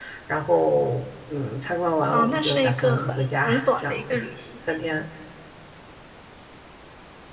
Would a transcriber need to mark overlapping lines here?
Yes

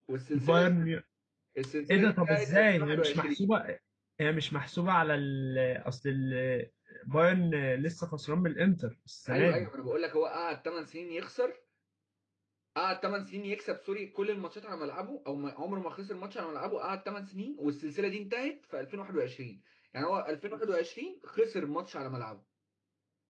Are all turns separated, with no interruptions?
No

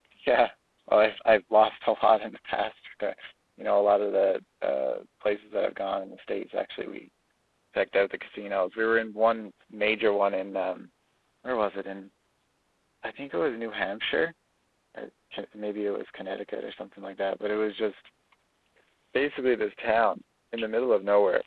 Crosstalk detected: No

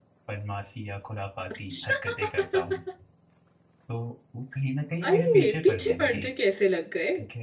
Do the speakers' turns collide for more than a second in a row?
Yes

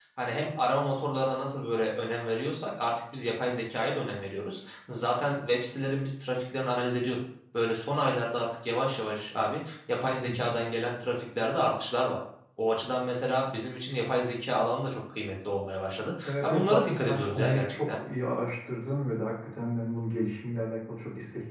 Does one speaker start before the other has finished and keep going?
Yes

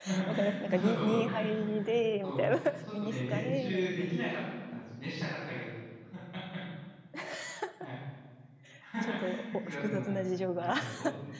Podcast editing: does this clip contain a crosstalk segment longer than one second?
Yes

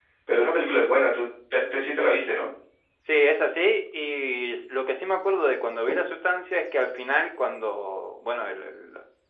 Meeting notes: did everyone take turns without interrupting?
Yes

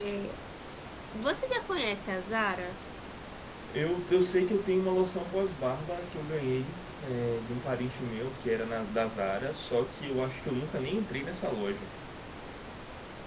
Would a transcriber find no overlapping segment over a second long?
Yes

